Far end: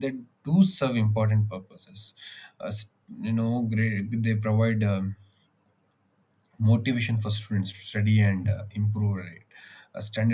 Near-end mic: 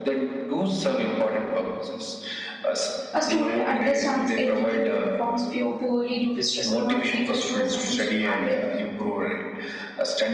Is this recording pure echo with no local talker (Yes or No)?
No